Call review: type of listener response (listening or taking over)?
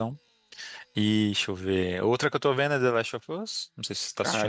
taking over